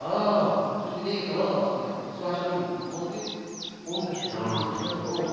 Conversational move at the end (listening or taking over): listening